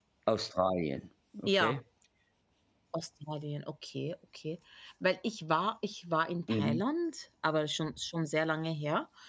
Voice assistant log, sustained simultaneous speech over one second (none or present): none